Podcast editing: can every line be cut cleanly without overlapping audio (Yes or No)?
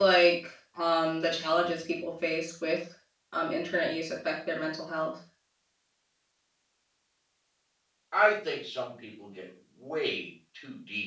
Yes